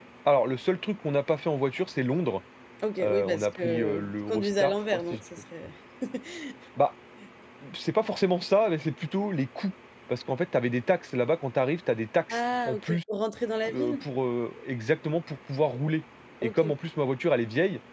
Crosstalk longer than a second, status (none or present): present